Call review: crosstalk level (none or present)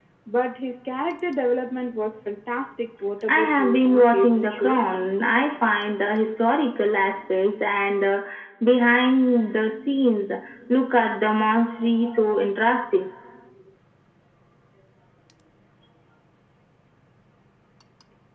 present